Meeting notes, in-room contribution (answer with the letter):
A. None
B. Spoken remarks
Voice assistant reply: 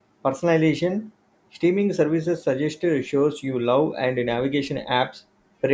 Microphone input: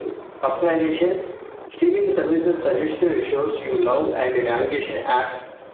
A